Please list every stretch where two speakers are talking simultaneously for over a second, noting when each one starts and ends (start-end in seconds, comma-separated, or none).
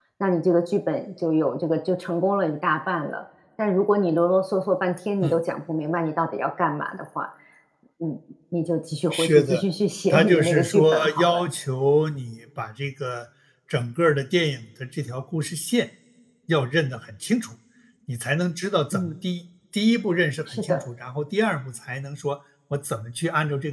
10.1-11.4